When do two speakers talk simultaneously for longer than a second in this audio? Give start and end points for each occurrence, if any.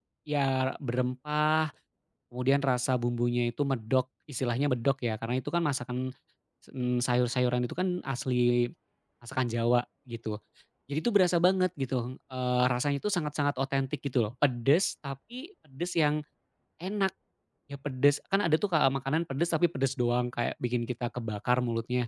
none

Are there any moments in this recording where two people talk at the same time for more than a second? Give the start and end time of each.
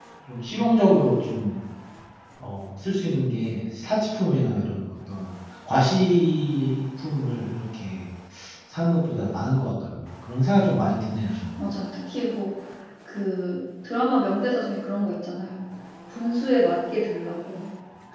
none

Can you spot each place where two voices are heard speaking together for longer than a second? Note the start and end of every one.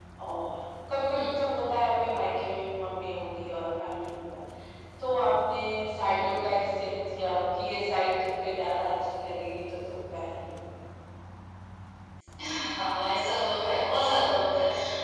none

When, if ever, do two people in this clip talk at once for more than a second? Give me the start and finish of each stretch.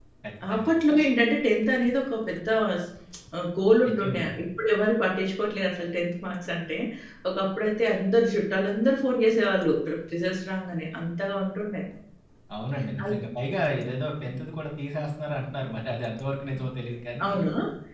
none

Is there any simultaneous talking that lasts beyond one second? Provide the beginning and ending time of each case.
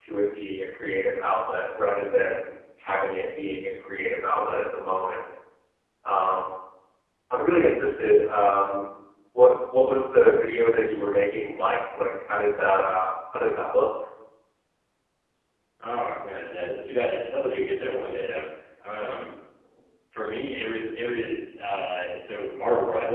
none

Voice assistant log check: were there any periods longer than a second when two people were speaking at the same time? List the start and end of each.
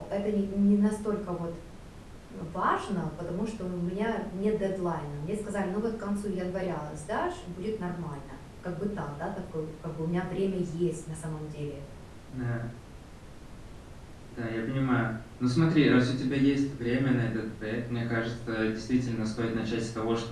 none

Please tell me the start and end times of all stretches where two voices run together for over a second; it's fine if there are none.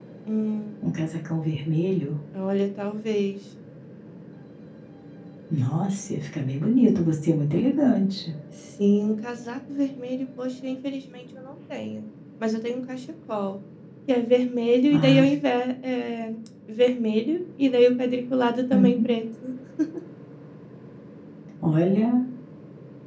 none

